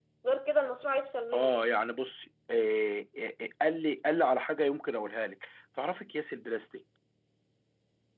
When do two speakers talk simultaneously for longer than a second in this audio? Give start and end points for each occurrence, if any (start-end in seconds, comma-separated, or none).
none